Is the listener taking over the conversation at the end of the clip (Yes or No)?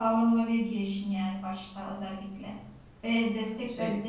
No